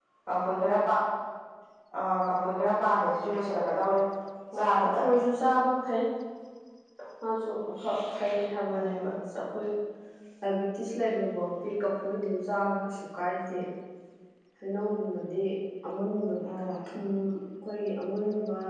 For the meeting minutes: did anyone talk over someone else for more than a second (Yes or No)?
No